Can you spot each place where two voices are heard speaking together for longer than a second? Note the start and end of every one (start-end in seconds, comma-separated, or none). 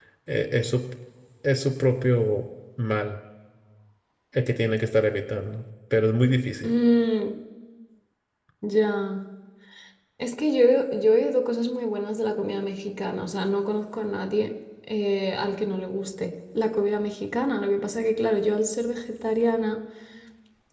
none